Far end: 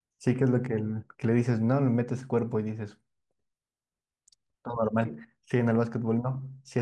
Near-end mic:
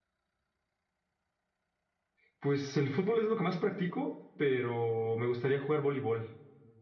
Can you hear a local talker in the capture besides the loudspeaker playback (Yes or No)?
Yes